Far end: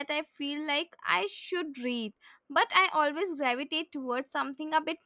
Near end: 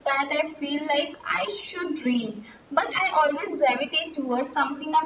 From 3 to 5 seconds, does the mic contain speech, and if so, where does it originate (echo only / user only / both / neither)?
echo only